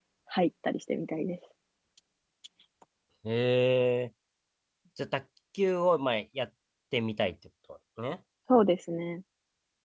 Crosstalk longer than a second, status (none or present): none